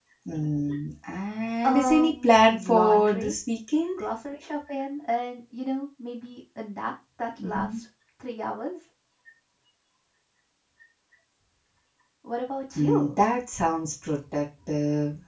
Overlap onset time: 1.6 s

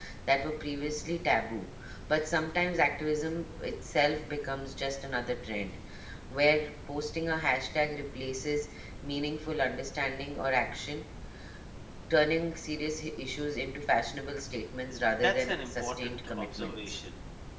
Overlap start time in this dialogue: 15.2 s

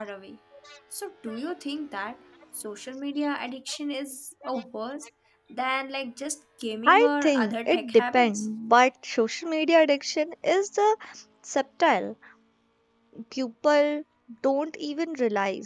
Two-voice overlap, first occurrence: 6.8 s

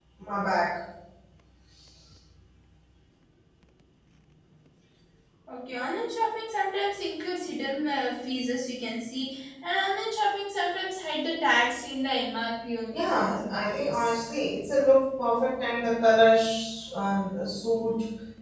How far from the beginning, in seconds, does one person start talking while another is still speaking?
12.9 s

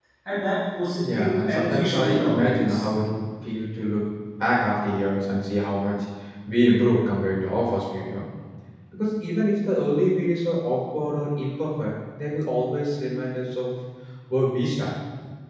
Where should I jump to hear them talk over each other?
1.0 s

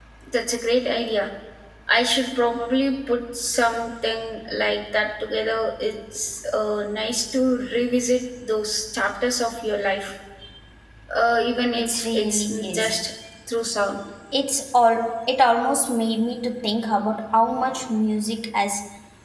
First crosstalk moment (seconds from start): 11.7 s

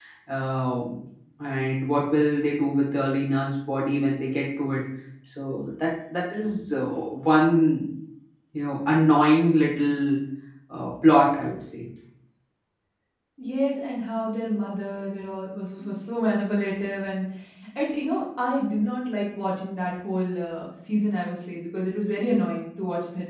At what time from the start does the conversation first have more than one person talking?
none

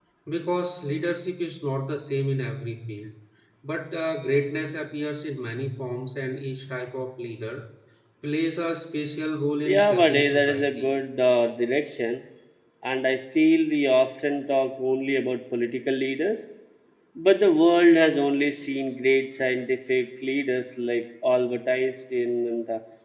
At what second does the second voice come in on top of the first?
9.6 s

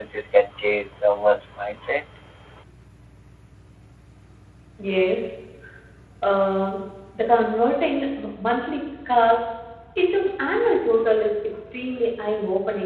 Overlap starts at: none

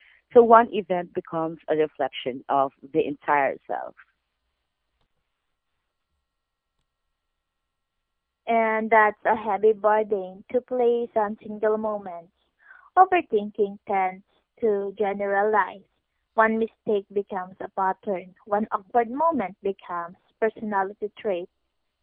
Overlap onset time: none

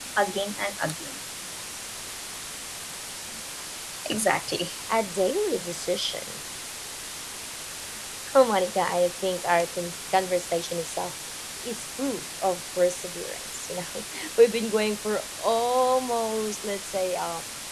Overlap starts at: none

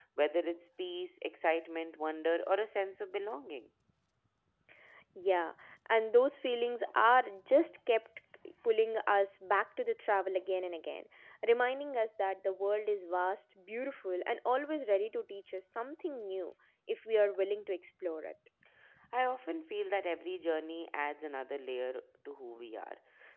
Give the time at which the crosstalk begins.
none

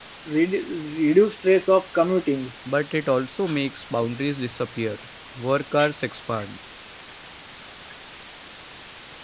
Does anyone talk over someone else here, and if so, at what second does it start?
none

